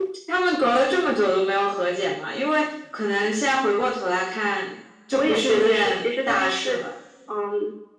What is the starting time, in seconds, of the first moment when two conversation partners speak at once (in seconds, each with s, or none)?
5.1 s